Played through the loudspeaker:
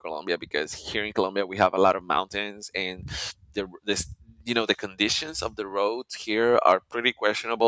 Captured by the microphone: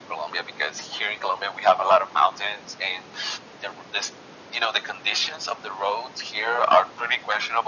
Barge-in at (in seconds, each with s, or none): none